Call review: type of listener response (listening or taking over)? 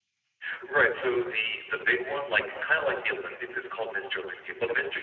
listening